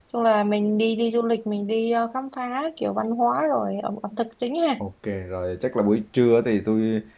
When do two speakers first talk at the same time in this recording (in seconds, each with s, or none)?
none